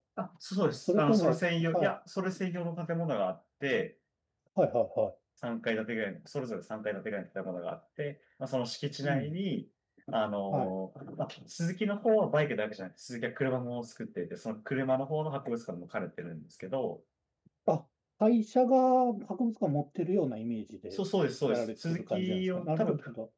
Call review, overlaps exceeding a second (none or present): present